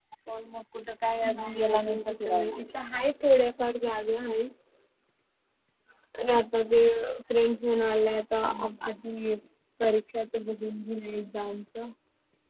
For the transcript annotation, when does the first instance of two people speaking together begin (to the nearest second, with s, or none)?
1 s